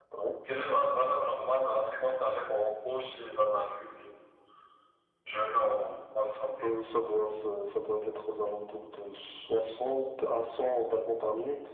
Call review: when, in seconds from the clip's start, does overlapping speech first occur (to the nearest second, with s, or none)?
none